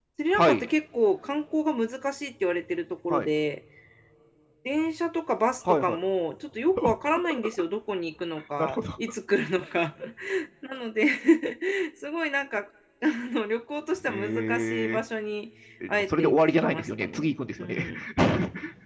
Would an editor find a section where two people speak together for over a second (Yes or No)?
Yes